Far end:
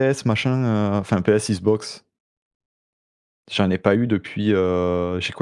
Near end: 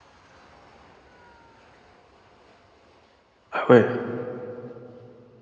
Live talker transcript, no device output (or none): Ah ouais.